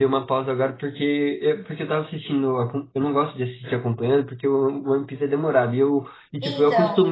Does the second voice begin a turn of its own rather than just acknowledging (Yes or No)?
No